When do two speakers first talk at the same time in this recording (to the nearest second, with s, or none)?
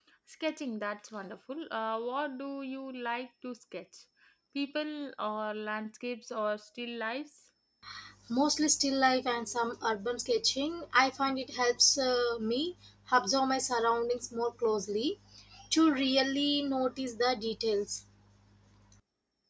none